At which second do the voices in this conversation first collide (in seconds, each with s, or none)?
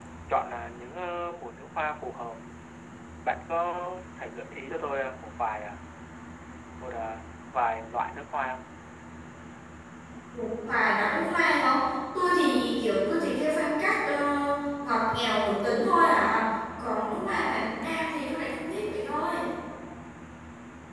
none